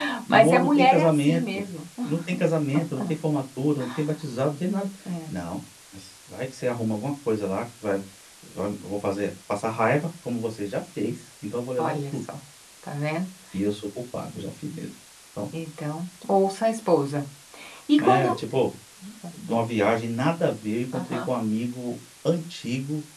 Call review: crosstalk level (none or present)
present